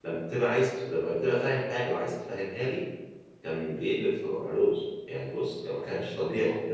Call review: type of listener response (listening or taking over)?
taking over